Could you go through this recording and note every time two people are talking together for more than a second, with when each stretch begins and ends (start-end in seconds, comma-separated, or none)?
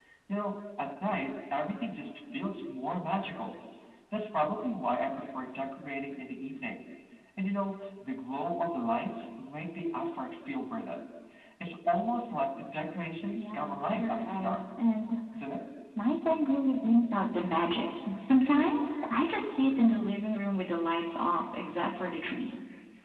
13.4-14.6